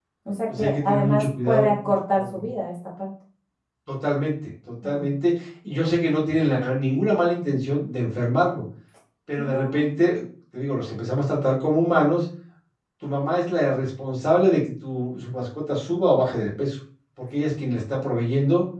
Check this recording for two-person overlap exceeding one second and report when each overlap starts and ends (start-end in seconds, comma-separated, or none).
0.6-2.5